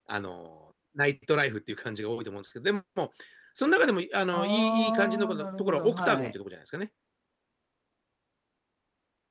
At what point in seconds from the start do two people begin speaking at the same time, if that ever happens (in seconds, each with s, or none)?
4.3 s